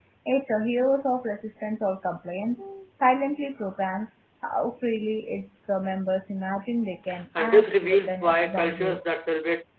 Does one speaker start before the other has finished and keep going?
Yes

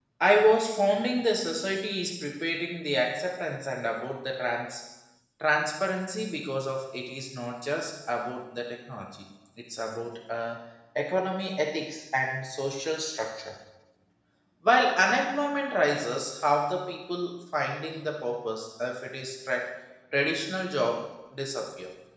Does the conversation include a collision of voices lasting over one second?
No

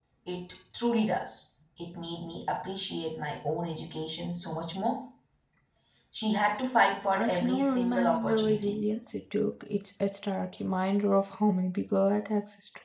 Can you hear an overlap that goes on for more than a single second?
Yes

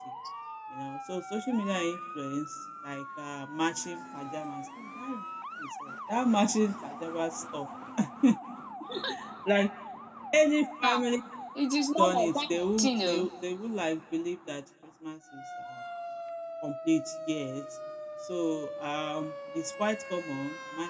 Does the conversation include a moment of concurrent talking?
Yes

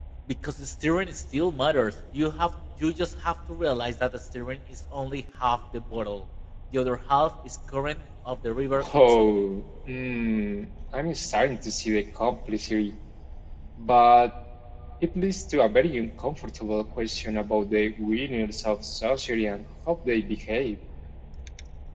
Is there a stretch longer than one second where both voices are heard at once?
No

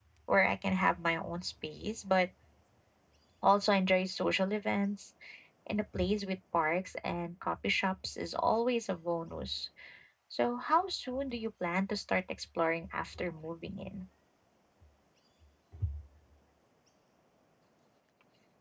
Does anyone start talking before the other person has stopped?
No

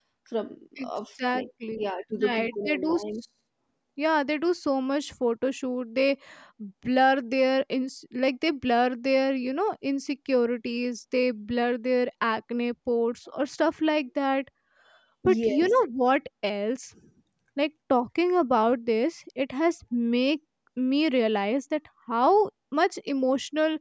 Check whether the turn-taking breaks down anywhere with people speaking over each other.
Yes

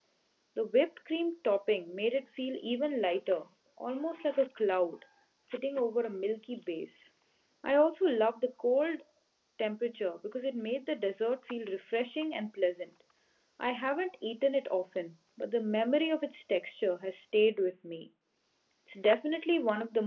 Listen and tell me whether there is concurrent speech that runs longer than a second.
No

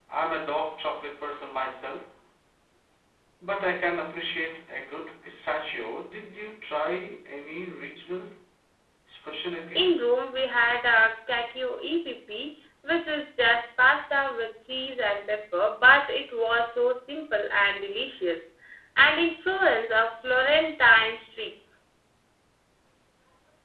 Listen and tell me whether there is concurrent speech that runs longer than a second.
No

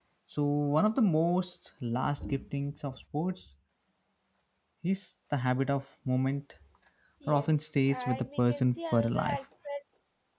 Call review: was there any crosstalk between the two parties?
Yes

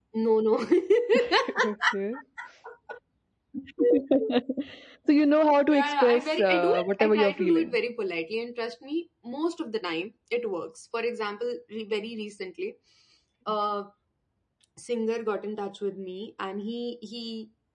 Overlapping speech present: Yes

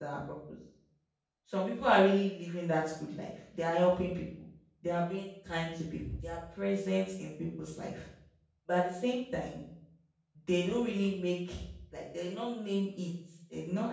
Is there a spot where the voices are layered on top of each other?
No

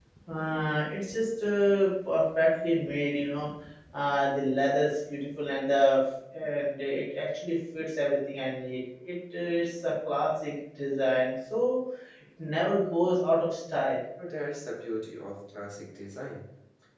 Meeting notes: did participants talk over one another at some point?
No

